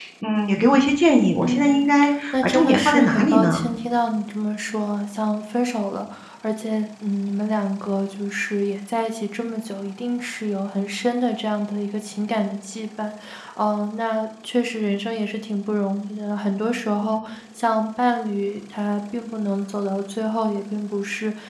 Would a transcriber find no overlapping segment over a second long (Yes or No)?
No